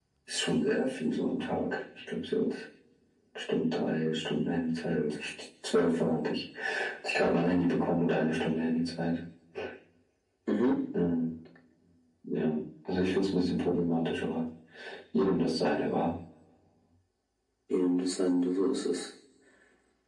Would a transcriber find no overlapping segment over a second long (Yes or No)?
Yes